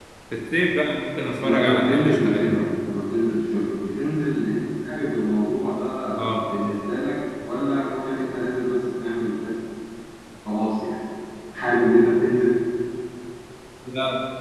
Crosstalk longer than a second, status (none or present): present